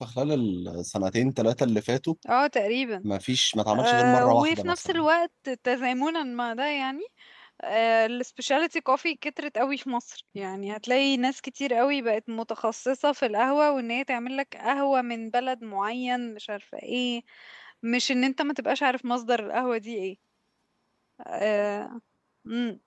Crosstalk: present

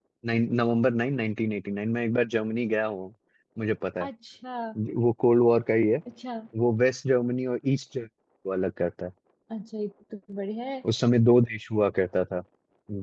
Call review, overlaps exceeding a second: none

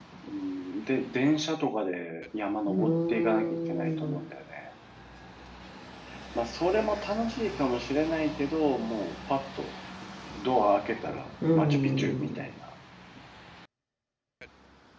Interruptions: present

